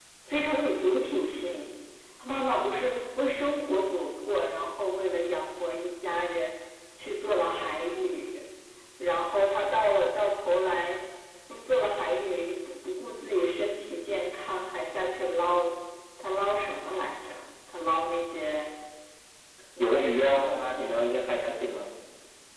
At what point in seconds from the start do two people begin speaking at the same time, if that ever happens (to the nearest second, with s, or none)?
20 s